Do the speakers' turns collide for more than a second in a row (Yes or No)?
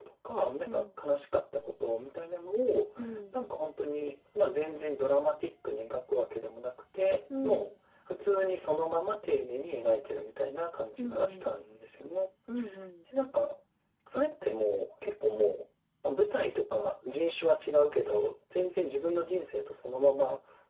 No